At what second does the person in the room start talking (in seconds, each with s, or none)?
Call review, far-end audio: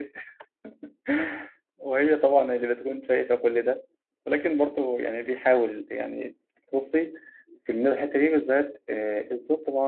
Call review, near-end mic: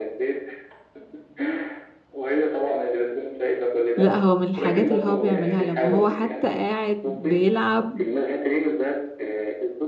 4.0 s